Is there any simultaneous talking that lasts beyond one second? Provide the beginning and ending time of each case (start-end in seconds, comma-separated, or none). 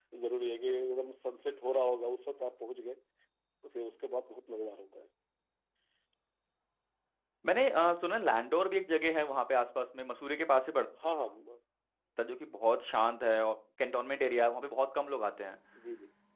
none